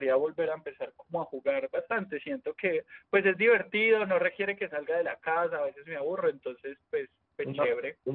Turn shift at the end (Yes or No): Yes